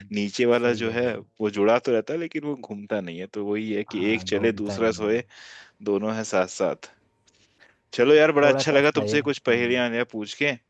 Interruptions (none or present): present